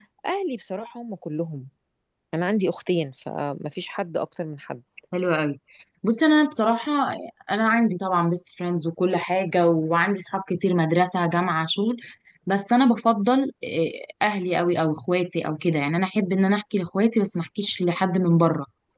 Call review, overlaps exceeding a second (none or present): none